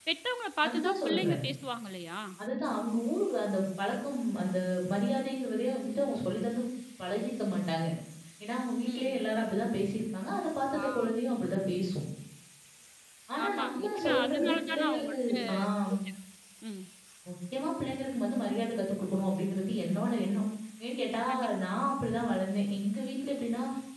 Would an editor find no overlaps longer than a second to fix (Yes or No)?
No